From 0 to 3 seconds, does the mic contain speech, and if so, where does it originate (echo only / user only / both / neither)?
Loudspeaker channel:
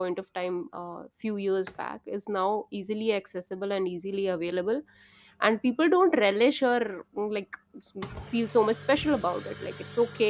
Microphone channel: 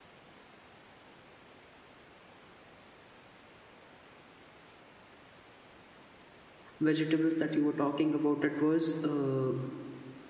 neither